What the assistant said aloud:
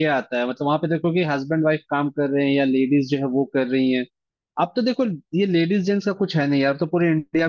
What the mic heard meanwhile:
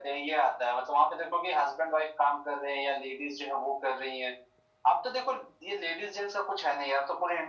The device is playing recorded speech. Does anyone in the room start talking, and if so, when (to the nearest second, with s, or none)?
none